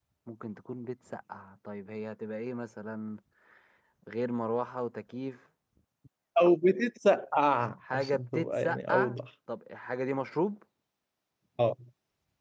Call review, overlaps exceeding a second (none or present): present